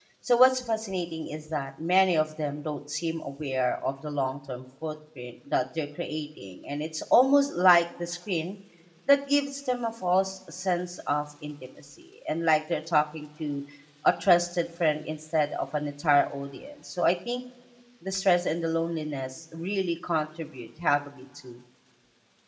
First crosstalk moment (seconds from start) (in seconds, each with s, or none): none